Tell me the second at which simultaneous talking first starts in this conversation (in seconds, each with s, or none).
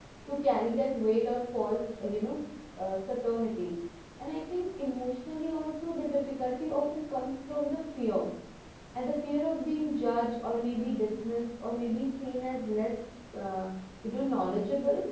none